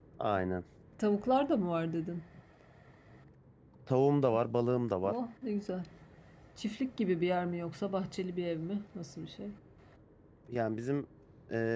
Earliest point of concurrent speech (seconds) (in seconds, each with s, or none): none